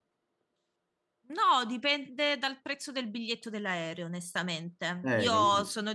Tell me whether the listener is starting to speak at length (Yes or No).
No